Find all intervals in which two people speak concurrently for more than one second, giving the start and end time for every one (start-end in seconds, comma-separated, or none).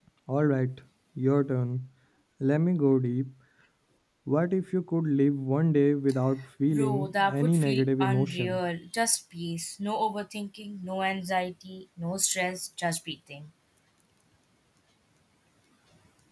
6.7-8.6